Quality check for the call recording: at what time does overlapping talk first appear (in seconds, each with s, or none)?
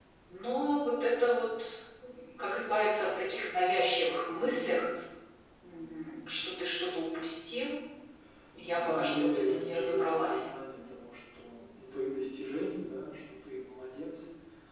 8.6 s